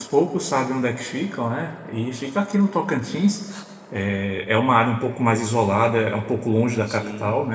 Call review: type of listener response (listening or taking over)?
listening